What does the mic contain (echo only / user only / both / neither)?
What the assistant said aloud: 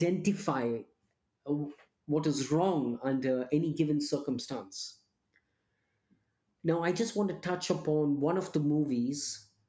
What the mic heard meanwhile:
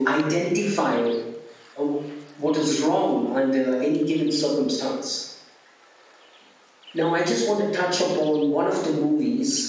echo only